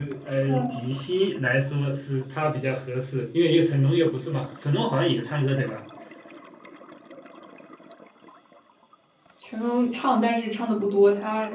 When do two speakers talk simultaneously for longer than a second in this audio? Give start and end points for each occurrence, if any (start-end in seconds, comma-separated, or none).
none